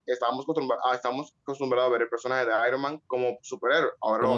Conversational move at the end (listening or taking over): listening